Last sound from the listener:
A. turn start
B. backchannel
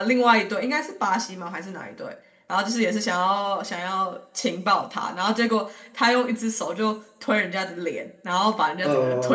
A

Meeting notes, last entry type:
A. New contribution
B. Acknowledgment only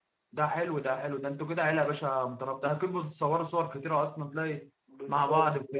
A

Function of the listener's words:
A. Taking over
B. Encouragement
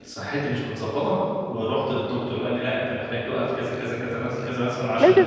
A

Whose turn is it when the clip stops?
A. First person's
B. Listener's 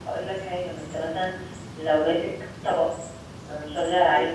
A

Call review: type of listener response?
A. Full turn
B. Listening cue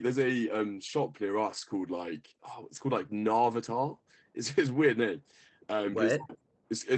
B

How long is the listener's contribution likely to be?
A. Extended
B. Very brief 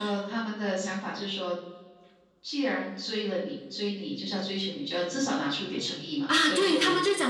A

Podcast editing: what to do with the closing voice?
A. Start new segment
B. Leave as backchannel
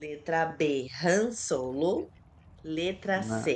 B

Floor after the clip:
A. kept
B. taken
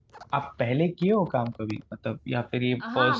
B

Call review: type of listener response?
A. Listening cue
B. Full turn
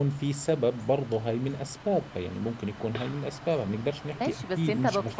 B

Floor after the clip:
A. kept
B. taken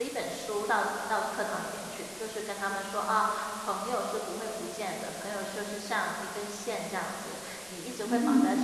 A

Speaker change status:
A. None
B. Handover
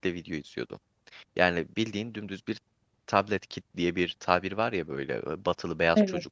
A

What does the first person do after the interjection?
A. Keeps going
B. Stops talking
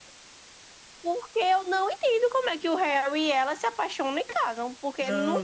B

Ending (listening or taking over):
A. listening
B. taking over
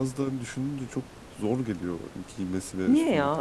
B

